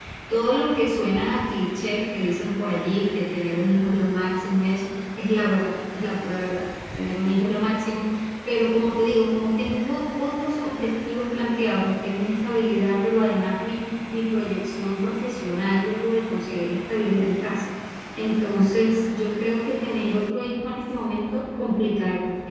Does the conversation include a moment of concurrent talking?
No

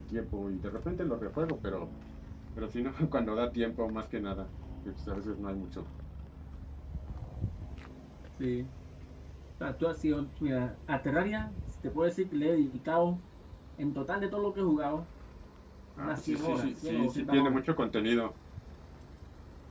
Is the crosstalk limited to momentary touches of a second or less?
No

